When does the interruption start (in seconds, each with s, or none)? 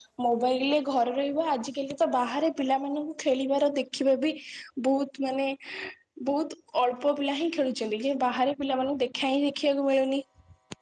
none